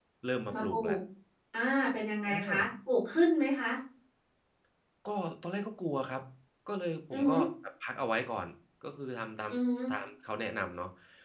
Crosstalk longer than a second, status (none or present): none